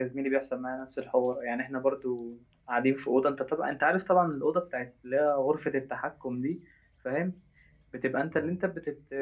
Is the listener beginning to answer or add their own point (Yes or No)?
No